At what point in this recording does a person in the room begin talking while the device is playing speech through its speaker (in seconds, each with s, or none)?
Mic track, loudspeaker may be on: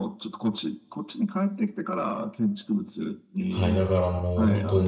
3.5 s